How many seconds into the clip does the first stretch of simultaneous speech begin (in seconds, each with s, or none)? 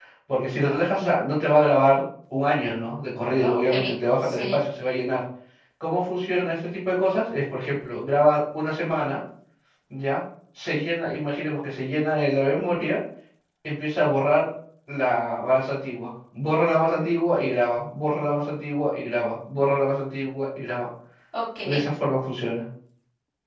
3.4 s